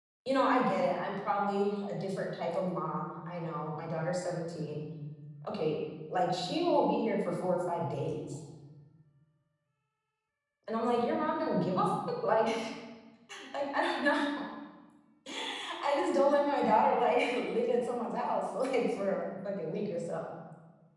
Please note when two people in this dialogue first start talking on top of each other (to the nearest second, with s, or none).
none